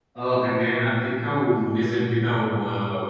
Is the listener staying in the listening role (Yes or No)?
Yes